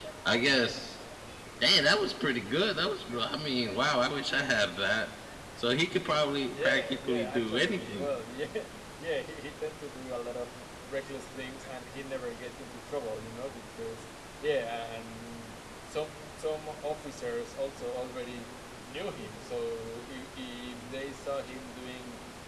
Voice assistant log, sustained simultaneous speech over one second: present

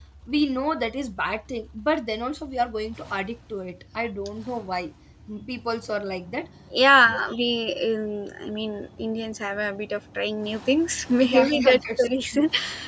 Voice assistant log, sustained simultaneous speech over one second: present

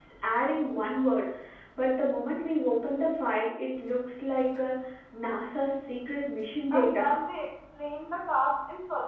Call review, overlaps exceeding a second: none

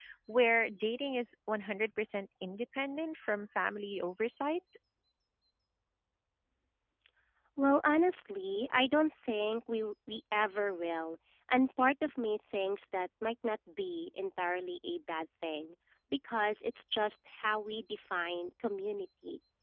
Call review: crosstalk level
none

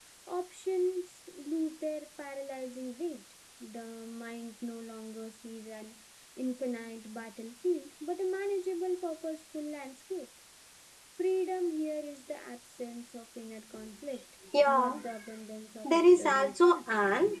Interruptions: present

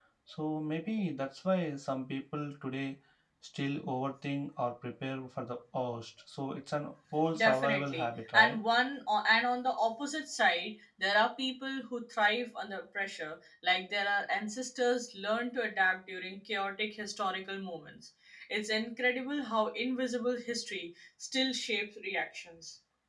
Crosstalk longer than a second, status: present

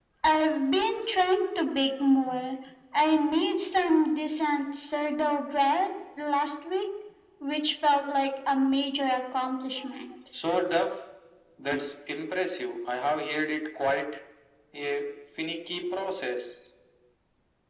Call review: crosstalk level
none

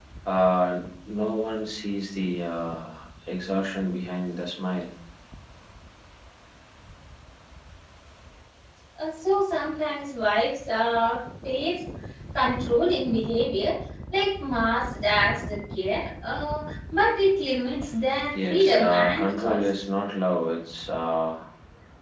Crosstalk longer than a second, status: present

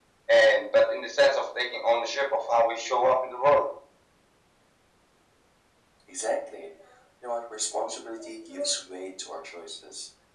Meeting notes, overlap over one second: none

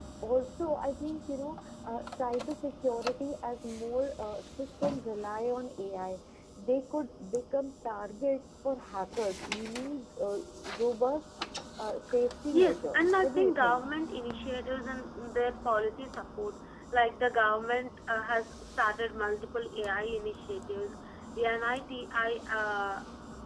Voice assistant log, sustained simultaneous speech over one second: present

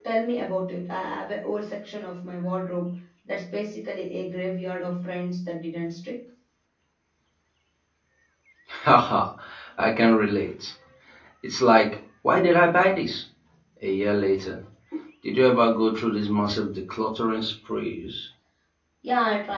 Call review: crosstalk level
none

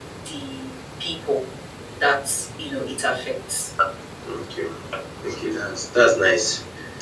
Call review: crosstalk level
none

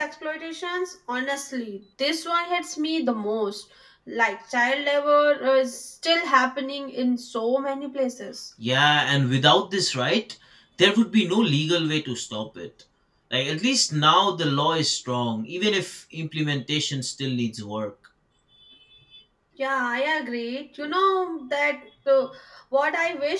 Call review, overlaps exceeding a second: none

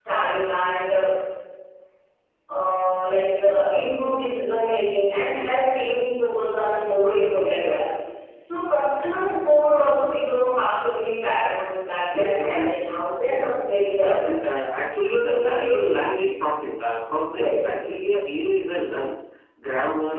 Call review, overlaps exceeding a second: present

